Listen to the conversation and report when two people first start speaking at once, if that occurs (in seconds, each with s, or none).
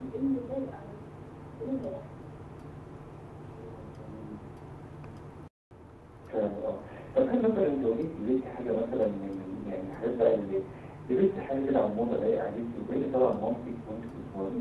none